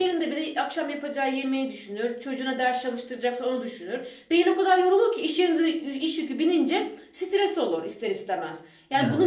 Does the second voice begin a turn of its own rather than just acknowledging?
No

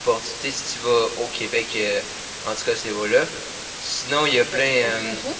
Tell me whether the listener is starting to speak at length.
Yes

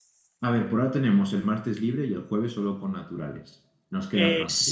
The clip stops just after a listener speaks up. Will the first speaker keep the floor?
No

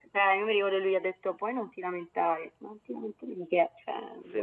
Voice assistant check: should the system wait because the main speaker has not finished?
No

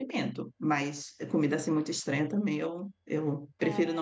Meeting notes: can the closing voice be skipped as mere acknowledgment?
Yes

